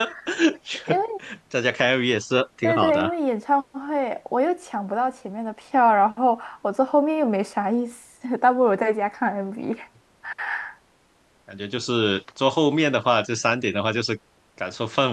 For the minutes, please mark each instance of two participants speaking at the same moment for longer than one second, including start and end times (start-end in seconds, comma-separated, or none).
none